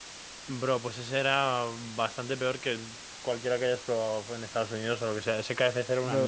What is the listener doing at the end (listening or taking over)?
taking over